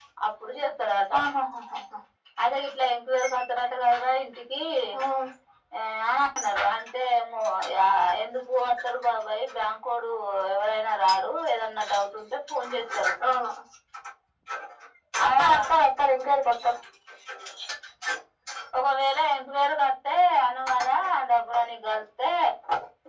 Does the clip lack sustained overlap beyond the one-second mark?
Yes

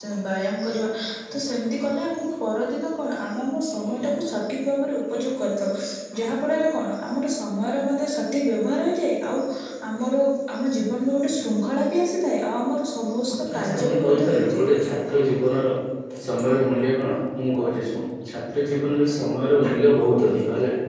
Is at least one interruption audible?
Yes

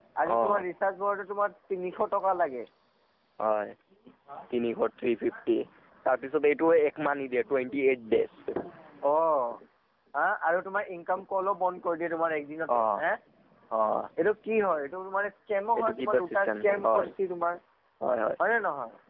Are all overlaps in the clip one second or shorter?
No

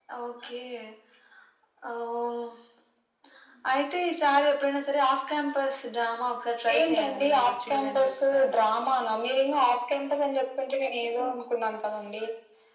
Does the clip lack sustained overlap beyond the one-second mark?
No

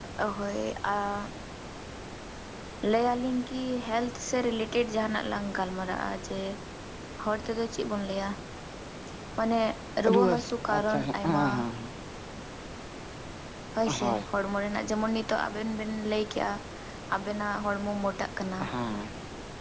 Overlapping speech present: Yes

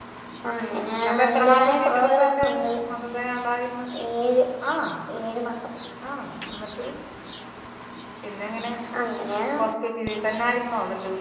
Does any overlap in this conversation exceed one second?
Yes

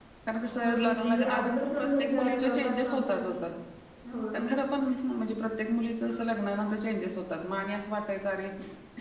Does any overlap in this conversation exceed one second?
Yes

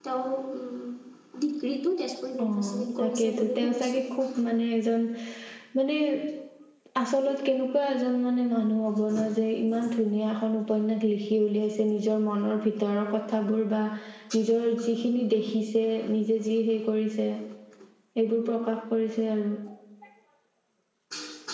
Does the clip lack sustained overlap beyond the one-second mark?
No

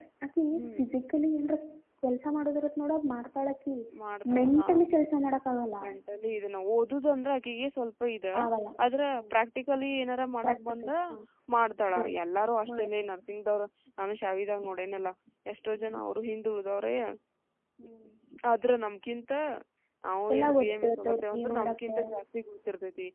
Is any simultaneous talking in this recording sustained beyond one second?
Yes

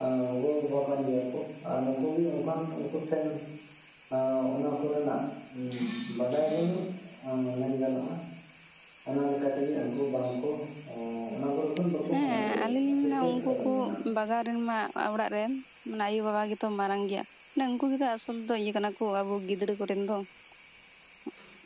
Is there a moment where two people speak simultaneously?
Yes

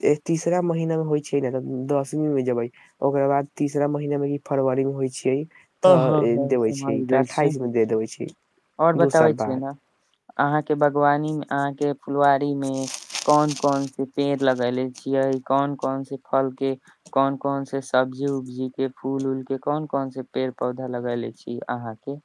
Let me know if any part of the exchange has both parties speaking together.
Yes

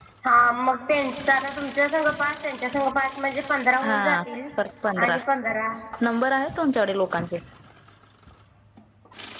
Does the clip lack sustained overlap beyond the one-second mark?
Yes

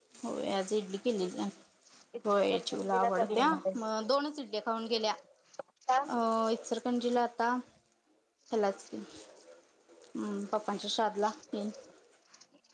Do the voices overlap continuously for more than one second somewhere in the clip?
Yes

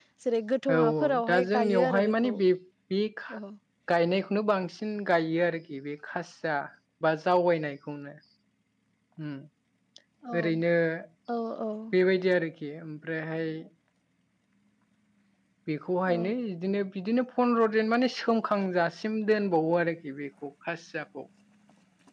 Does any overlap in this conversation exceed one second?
Yes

